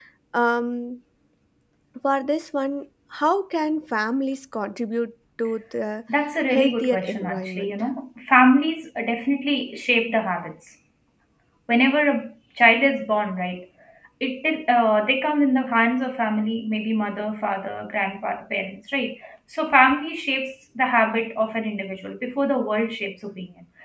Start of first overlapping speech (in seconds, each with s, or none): 6.5 s